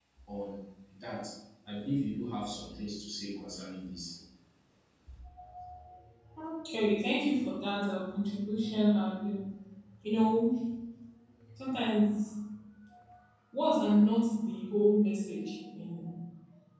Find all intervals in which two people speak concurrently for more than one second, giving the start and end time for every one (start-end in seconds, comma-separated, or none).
none